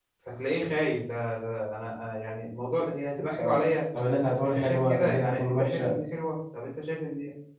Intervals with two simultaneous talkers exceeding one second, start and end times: 4.5-6.0

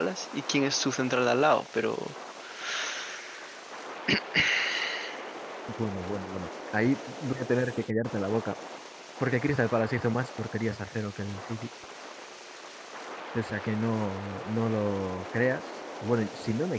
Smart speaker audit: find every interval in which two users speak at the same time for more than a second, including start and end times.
none

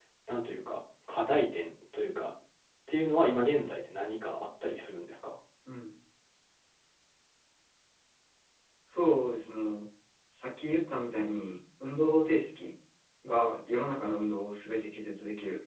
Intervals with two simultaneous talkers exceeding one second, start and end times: none

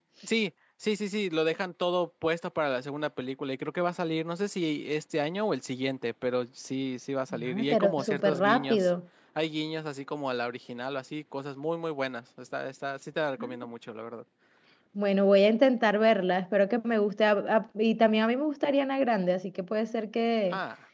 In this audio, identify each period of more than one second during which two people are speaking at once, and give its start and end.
7.4-8.9

